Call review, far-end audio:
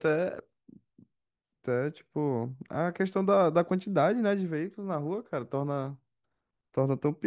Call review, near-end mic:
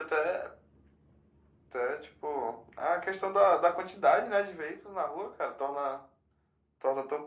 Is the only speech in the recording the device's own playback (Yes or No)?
Yes